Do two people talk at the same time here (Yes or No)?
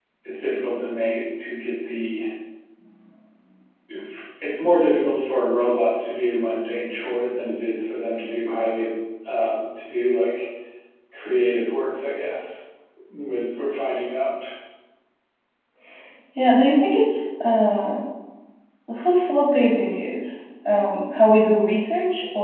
No